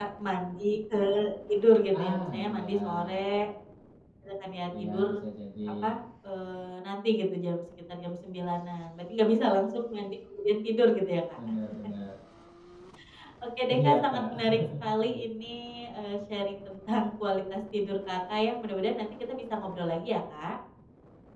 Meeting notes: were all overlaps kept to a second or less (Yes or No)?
No